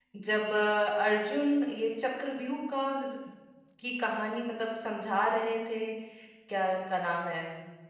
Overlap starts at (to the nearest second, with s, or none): none